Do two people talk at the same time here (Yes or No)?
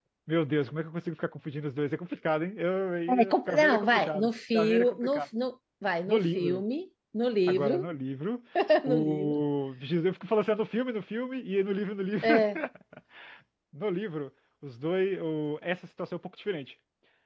Yes